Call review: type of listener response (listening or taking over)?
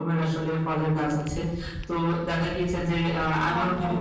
listening